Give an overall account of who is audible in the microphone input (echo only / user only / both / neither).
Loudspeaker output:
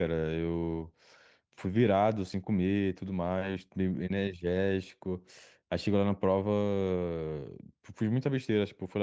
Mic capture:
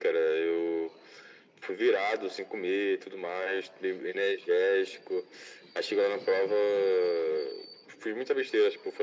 echo only